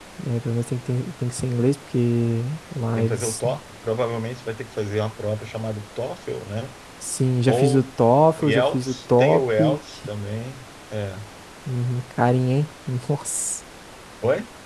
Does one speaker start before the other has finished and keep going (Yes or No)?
Yes